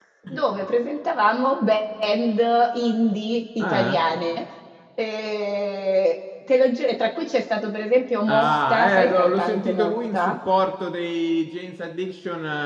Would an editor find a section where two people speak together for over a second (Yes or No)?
Yes